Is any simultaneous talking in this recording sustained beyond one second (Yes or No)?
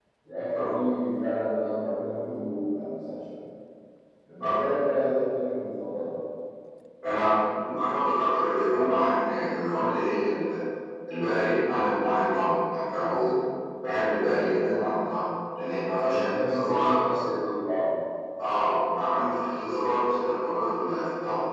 Yes